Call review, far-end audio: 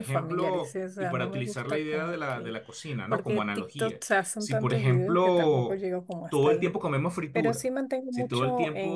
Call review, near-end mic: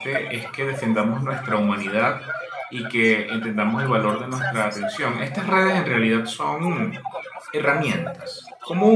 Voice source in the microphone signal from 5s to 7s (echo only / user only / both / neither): both